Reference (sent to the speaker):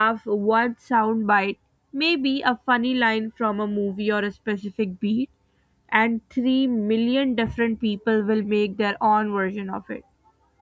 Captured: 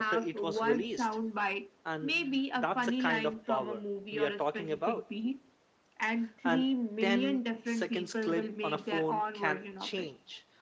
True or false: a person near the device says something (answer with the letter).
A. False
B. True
B